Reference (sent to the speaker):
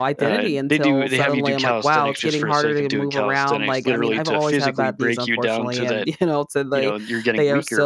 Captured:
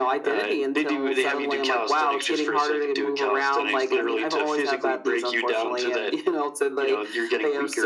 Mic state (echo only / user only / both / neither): echo only